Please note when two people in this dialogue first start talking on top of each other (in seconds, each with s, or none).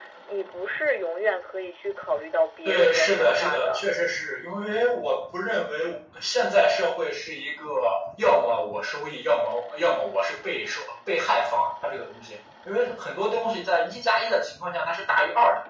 2.6 s